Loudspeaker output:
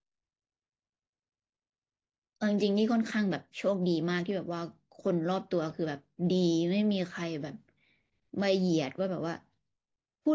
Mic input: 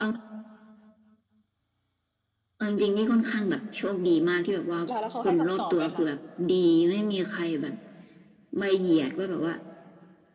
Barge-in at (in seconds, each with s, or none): 4.8 s